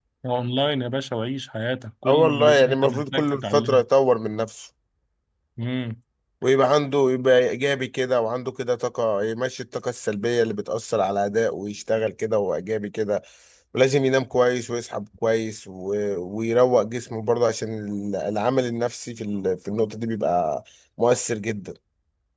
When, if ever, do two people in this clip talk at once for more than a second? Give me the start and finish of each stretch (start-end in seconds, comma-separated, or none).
2.1-3.8